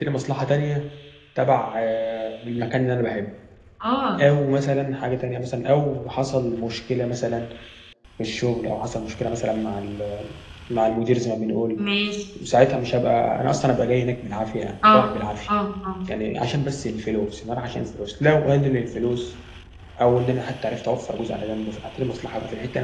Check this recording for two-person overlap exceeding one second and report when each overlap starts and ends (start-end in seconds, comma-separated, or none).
none